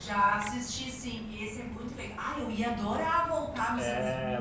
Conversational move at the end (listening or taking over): taking over